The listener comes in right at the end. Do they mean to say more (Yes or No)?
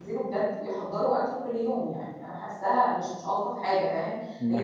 No